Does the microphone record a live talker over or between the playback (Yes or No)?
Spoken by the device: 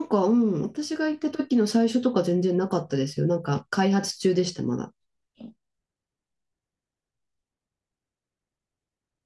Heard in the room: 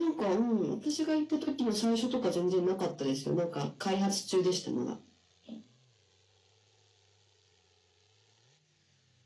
No